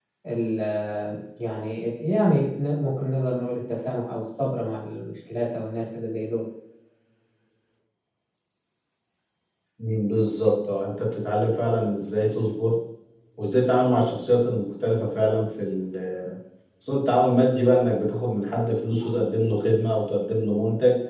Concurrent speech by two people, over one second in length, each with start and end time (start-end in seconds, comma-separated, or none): none